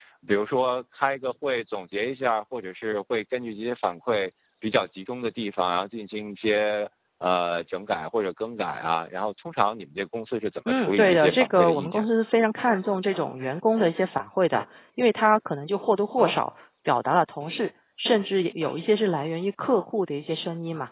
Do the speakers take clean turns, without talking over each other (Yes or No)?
No